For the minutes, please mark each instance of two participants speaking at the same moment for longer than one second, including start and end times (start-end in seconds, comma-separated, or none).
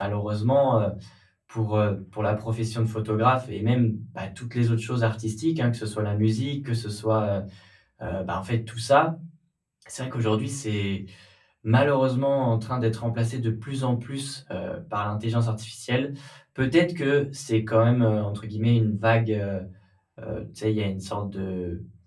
none